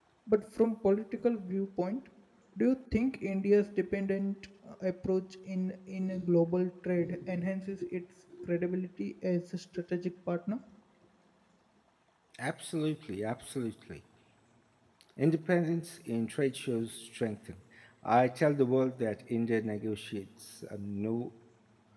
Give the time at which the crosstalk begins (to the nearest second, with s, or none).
none